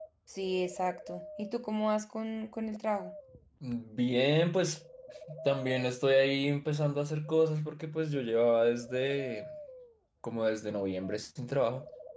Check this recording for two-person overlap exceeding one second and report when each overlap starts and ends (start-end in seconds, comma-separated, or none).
none